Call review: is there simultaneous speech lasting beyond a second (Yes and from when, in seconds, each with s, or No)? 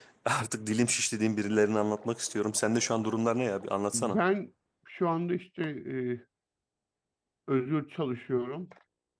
No